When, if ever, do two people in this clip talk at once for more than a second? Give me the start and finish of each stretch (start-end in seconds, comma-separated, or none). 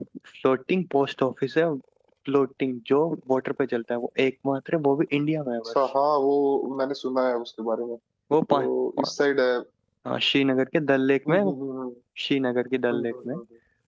none